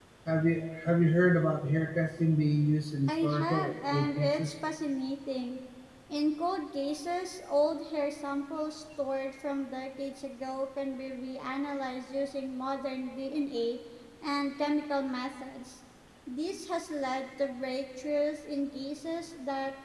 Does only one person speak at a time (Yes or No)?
No